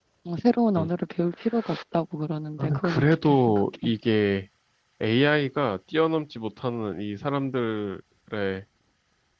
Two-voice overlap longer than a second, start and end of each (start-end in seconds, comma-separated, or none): 2.6-3.9